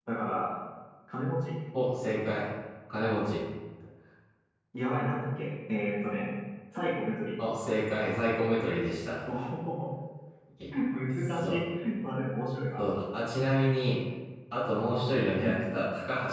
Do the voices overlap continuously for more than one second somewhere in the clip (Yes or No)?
No